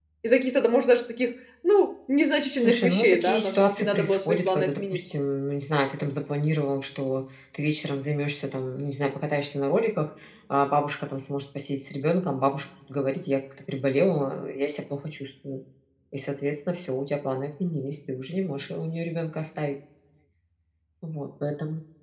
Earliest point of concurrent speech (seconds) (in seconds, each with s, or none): 2.6 s